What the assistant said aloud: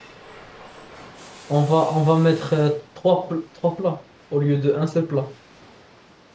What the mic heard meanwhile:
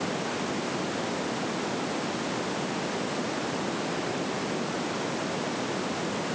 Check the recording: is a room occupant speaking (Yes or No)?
No